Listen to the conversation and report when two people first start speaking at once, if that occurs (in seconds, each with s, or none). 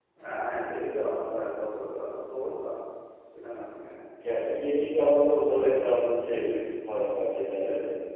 none